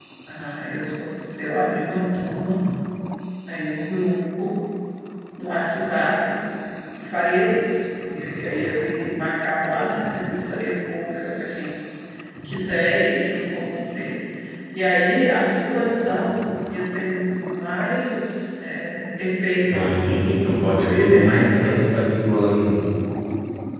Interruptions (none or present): present